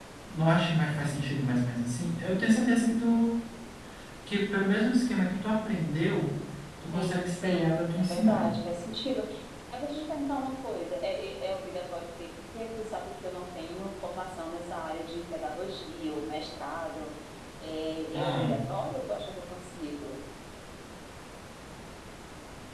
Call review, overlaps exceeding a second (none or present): present